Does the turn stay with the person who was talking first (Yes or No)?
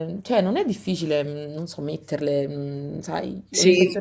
No